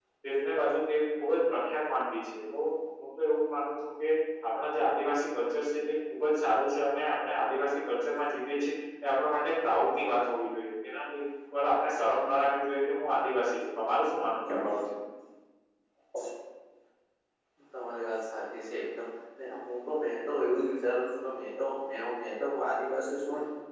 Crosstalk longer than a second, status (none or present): none